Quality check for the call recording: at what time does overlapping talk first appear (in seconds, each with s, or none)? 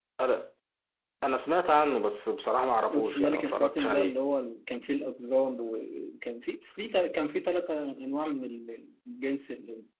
2.9 s